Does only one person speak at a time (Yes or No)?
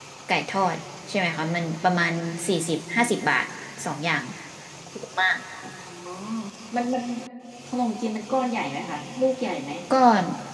Yes